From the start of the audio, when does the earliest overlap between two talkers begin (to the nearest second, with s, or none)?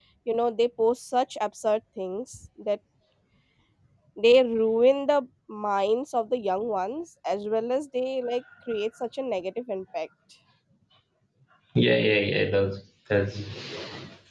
none